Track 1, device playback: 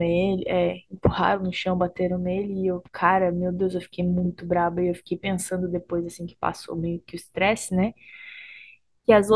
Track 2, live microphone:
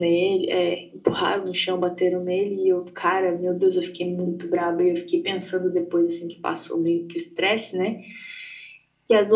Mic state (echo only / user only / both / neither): echo only